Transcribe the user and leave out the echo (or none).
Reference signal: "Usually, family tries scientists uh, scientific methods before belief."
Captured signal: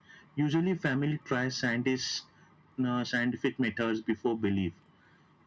none